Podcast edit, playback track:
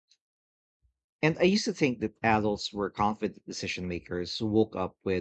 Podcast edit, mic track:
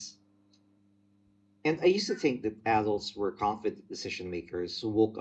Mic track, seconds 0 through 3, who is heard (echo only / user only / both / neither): echo only